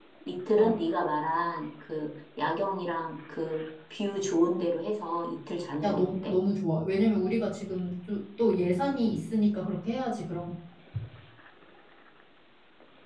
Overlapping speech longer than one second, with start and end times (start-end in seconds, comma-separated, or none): none